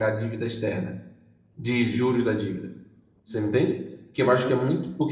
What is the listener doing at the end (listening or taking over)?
listening